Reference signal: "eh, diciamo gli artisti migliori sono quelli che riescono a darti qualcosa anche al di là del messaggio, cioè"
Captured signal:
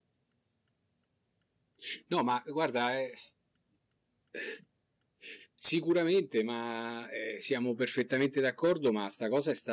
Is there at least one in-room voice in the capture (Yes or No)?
Yes